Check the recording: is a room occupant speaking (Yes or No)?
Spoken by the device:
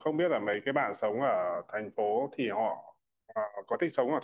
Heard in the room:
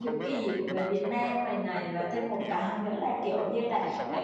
Yes